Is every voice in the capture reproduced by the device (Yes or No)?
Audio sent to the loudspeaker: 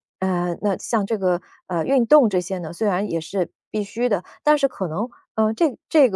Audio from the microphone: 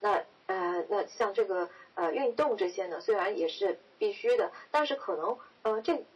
Yes